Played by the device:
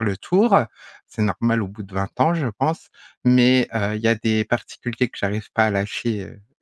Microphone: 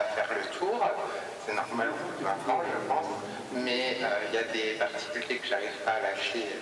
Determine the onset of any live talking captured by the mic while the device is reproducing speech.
1.5 s

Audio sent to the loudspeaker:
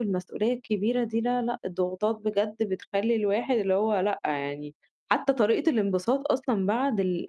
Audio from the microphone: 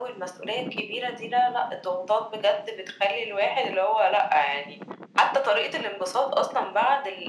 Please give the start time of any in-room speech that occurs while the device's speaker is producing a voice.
none

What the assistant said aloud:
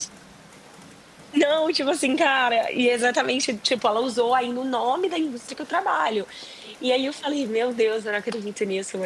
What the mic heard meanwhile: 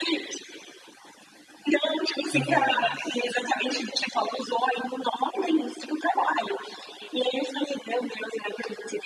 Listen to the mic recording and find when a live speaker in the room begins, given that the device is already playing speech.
2.3 s

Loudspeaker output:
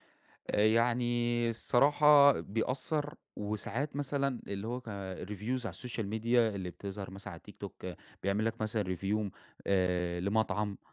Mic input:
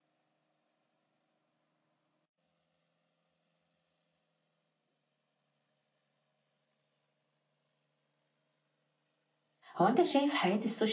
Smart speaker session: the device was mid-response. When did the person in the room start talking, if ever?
9.8 s

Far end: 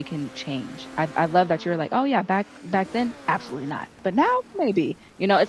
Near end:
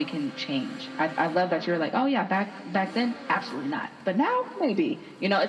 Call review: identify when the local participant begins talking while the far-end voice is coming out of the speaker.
none

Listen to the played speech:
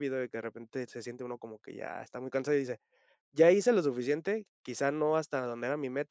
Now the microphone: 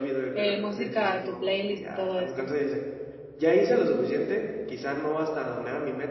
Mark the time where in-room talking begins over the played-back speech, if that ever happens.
0.3 s

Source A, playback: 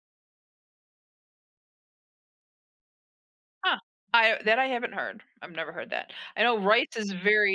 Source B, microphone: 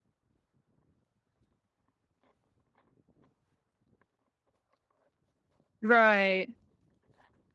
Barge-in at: 5.8 s

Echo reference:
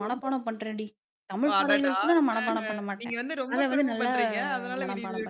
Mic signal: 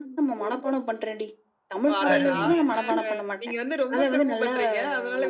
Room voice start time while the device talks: 2.1 s

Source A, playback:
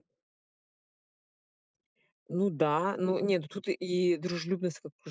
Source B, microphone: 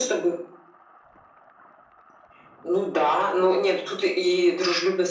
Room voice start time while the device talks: none

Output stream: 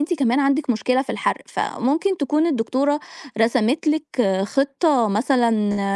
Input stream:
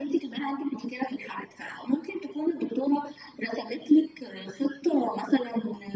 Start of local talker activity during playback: none

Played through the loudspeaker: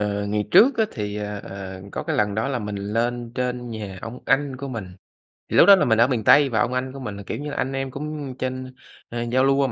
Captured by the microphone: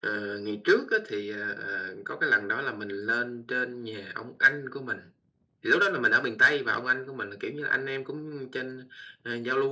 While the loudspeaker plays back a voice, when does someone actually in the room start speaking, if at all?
none

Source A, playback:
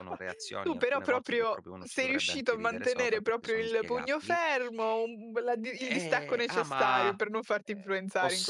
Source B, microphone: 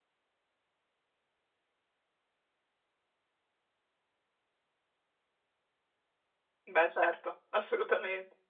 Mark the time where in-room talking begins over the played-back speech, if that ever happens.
6.7 s

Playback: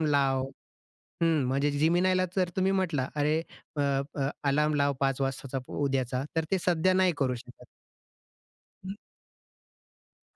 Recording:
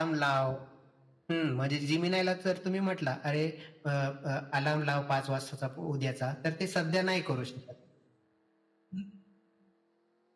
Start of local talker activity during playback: none

